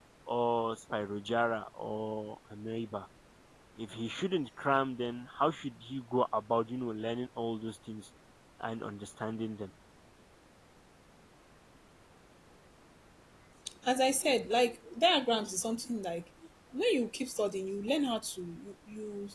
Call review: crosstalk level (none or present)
none